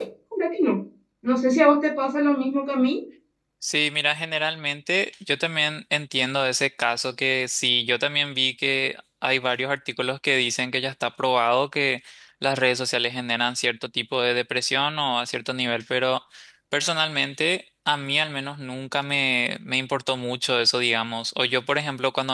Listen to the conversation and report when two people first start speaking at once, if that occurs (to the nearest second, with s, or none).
none